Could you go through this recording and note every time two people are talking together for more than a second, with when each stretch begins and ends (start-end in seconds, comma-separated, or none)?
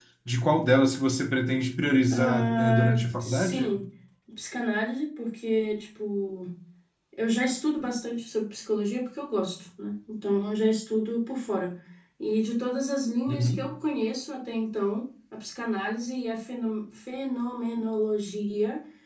2.1-3.8